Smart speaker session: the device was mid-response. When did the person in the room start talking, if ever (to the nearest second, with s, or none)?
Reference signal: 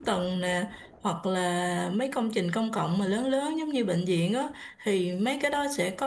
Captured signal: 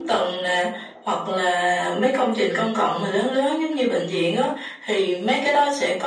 none